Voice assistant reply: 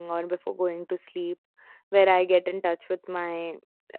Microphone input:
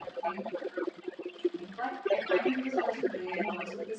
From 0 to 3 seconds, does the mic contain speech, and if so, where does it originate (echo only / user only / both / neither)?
both